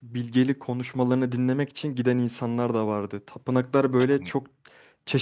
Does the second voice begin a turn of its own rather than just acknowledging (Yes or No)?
No